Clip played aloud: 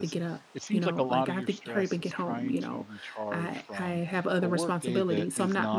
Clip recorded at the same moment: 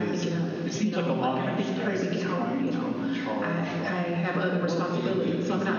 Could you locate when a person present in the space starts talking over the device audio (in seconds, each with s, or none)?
none